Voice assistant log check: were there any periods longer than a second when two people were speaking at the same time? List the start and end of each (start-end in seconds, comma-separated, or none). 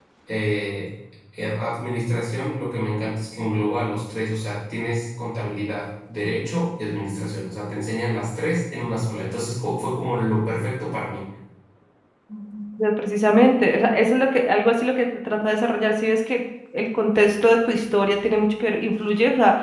none